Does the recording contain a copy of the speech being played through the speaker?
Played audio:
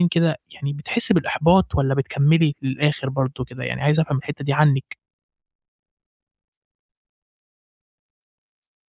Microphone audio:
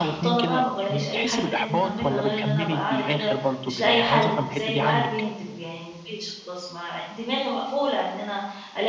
Yes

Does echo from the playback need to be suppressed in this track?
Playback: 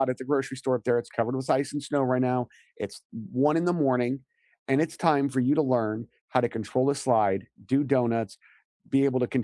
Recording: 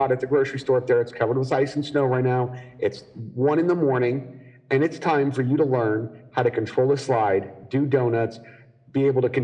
Yes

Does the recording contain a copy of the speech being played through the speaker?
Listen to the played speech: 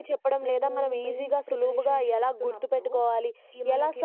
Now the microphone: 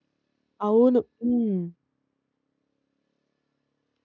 No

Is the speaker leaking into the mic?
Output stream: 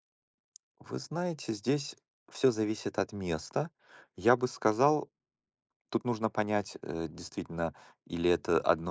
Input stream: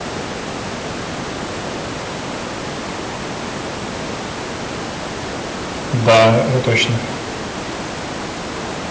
No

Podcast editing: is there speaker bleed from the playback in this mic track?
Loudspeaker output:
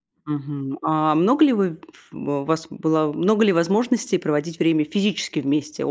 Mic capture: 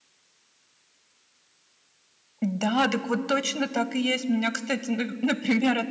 No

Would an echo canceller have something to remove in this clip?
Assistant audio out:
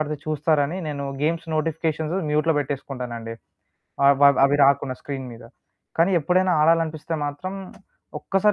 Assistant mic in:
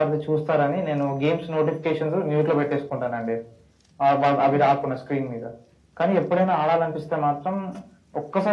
Yes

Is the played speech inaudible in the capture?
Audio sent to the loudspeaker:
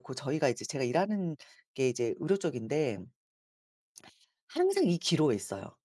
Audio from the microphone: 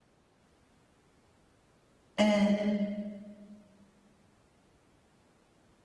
Yes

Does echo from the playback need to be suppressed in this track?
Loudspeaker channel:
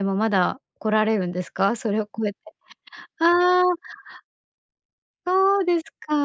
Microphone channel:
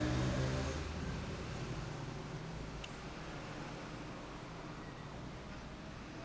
No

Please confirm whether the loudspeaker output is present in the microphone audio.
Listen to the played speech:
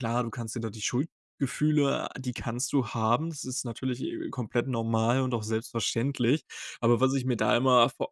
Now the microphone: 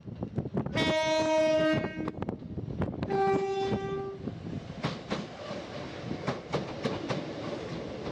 No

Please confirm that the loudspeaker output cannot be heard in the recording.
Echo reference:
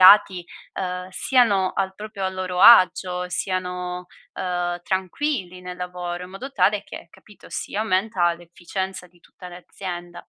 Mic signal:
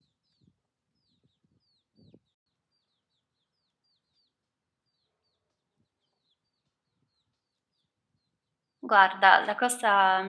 Yes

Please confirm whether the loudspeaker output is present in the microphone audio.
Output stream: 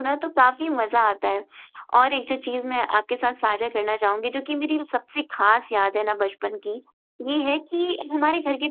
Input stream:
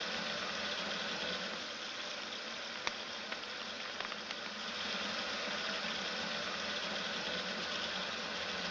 No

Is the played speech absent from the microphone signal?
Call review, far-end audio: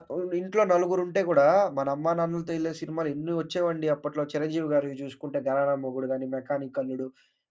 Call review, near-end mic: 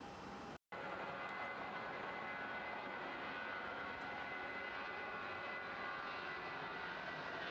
Yes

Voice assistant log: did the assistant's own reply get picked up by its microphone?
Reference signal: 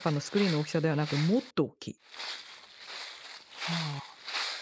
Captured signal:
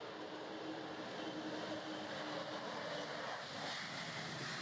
No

